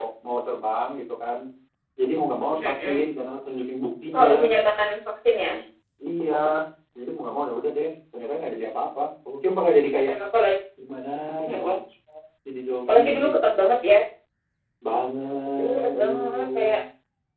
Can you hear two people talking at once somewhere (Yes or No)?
Yes